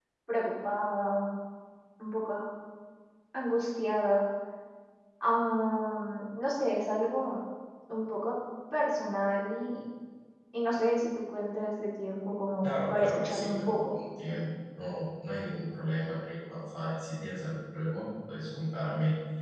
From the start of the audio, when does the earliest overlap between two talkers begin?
13 s

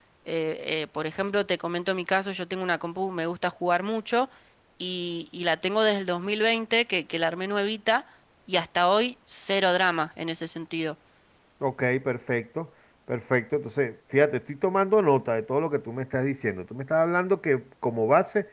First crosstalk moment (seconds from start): none

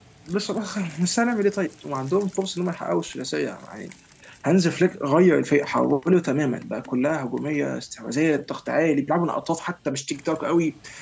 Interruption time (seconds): none

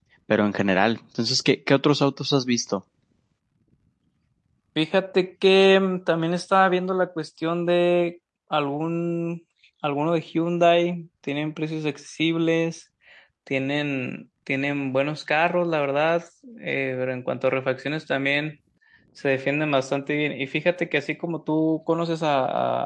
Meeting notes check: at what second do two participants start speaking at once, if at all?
none

